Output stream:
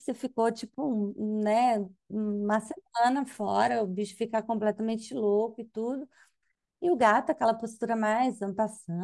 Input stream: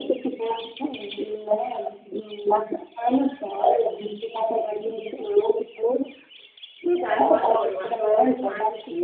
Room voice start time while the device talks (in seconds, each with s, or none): 7.1 s